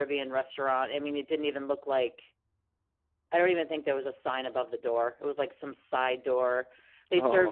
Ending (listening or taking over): listening